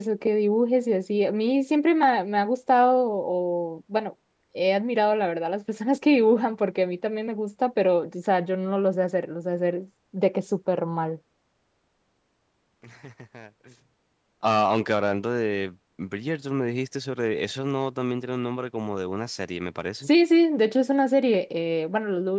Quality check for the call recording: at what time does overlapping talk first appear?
none

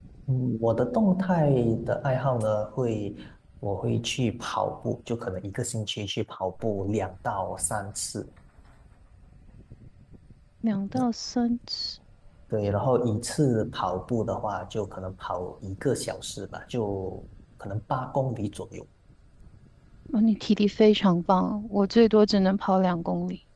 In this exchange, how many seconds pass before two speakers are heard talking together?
none

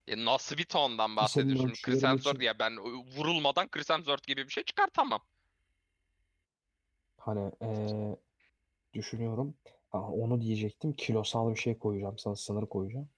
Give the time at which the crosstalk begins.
1 s

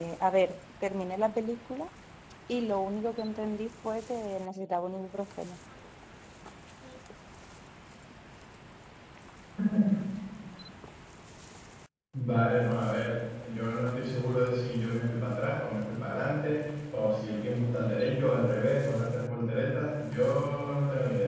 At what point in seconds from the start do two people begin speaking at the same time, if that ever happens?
none

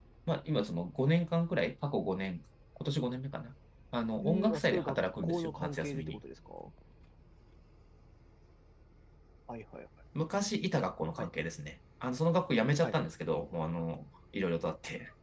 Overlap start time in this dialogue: 4 s

